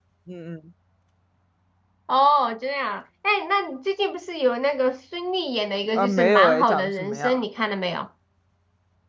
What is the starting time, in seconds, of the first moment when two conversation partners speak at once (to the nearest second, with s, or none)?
6 s